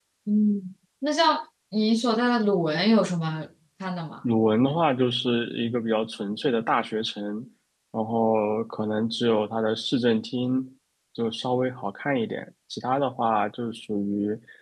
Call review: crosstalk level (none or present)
none